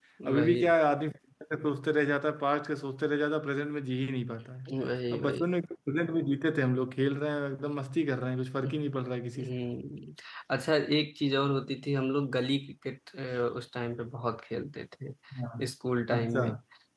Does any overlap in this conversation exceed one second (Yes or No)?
No